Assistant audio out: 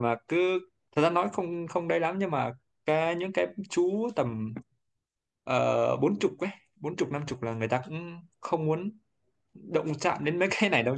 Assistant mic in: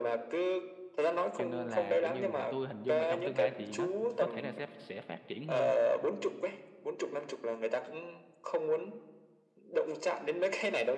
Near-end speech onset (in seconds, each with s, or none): 1.3 s